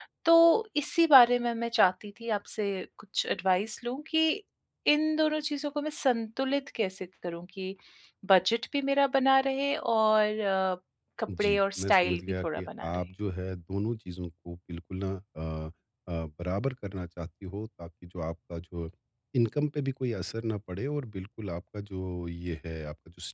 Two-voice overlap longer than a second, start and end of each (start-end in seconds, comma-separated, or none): 11.4-13.0